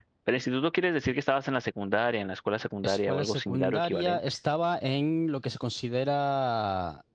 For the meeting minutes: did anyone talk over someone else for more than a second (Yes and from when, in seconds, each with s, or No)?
Yes, from 2.8 s